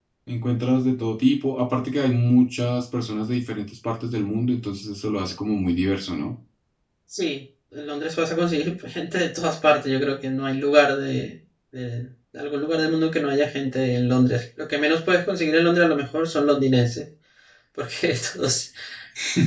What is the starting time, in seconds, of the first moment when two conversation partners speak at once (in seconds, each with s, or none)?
none